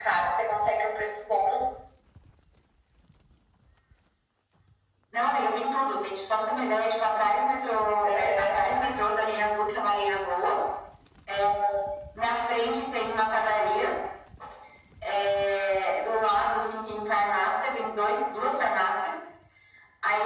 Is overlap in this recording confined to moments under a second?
Yes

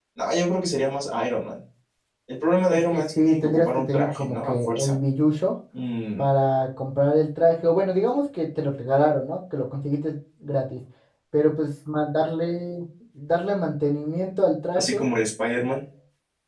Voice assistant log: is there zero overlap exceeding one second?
No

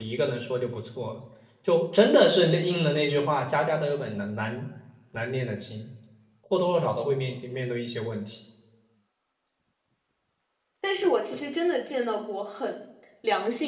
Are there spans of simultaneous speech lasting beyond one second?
No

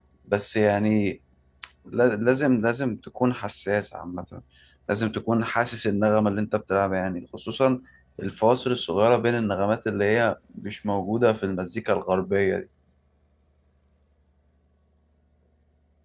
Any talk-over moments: No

